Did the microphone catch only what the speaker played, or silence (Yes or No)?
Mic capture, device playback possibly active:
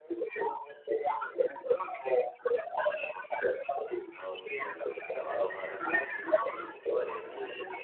No